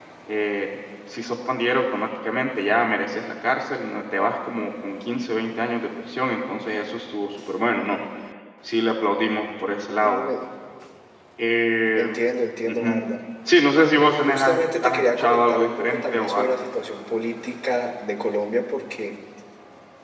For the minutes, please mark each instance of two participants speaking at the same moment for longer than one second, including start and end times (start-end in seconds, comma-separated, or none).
14.3-16.6